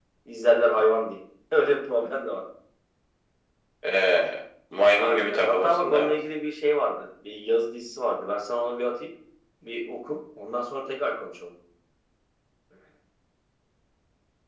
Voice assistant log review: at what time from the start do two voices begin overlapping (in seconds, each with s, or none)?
4.9 s